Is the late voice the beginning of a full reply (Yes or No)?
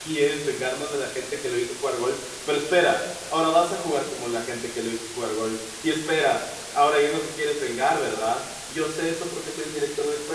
No